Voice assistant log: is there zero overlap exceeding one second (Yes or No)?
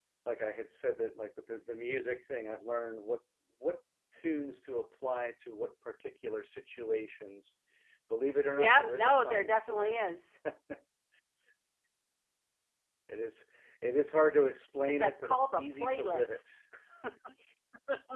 No